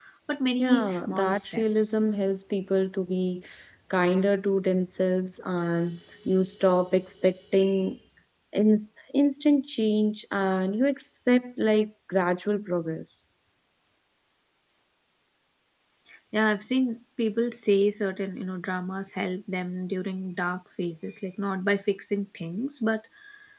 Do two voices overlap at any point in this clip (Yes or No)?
Yes